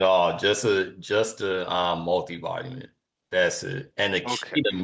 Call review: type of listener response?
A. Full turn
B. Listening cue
B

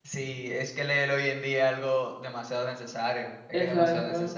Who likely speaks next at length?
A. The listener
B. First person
A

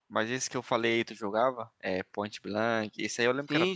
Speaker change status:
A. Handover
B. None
A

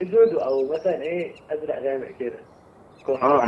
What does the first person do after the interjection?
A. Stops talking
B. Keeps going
A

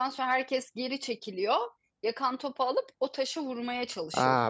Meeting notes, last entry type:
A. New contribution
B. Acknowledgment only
A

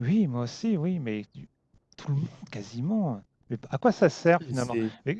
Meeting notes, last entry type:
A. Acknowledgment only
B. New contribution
A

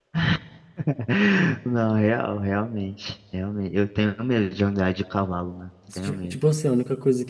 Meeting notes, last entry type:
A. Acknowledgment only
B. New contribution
B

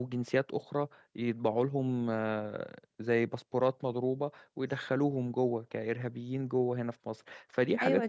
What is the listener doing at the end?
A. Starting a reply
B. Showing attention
A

